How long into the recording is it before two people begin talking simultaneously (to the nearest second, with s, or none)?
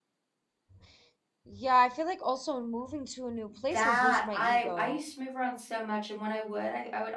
4 s